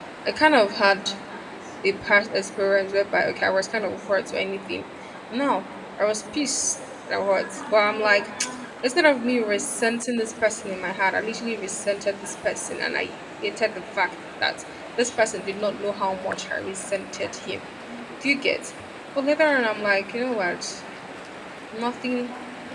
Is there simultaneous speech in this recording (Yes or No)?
No